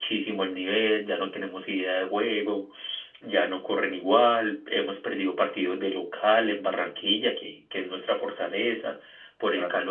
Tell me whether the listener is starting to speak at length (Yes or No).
No